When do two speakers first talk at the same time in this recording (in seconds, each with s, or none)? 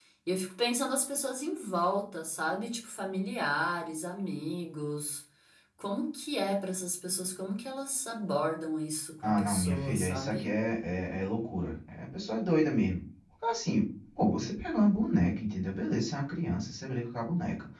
9.2 s